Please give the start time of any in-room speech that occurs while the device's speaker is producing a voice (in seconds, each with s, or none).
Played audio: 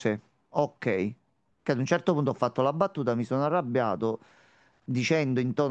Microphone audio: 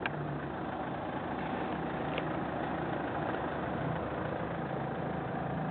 none